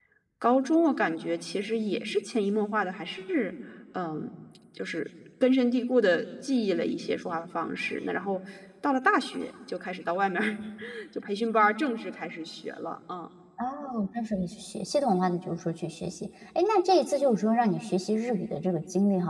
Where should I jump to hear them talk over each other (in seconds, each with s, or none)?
none